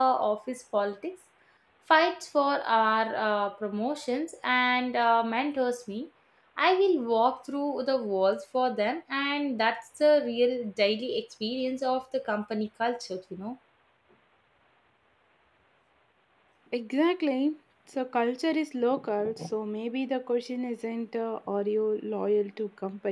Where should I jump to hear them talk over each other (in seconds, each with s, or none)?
none